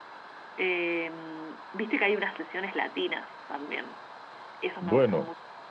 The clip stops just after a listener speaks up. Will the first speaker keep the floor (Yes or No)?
No